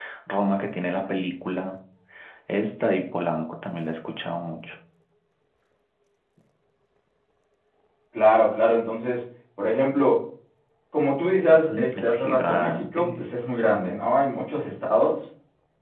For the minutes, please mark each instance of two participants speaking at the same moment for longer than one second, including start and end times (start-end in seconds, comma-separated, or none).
11.7-13.2